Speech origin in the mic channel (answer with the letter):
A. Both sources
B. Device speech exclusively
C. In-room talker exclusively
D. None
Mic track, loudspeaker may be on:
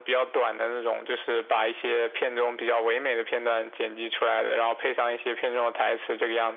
B